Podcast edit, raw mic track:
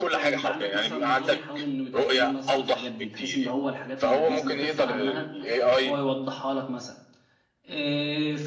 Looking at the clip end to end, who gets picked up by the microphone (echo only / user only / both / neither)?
both